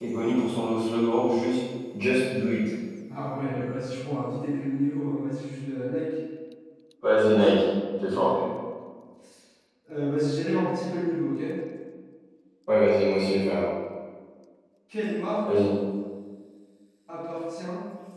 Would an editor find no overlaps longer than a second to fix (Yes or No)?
Yes